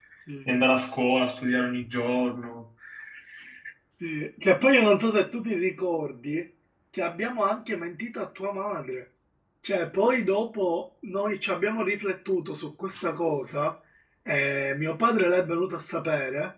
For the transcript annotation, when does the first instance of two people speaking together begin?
none

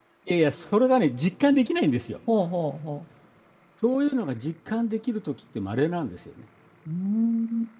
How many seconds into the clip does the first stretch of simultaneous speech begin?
none

